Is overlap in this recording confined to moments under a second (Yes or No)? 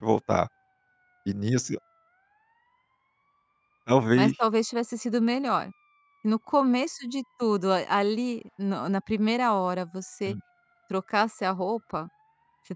Yes